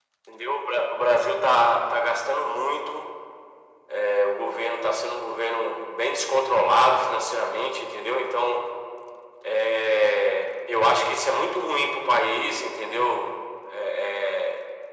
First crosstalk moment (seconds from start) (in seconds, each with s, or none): none